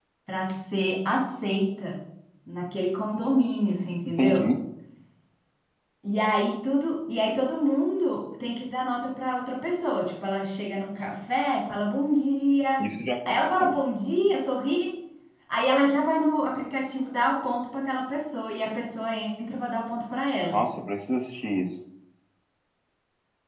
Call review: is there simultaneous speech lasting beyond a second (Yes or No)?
No